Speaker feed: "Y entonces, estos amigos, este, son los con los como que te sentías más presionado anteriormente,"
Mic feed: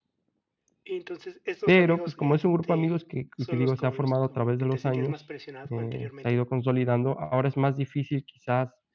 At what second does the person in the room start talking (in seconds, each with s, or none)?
1.6 s